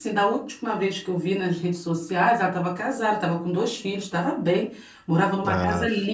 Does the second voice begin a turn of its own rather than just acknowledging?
No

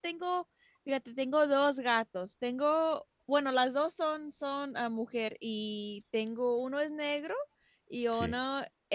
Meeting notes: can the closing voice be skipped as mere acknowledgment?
Yes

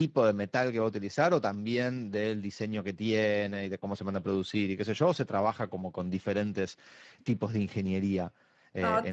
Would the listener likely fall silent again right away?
No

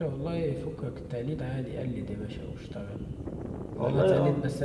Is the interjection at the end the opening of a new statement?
No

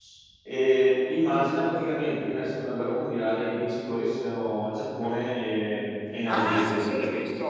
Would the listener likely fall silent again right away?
No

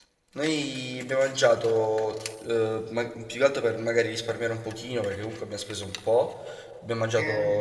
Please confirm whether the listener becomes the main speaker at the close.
No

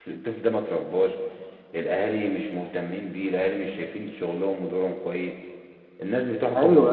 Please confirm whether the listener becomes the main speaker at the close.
No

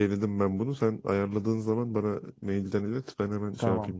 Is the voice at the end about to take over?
Yes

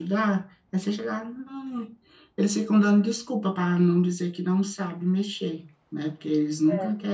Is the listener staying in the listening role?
Yes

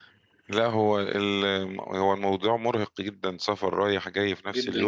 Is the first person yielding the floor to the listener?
Yes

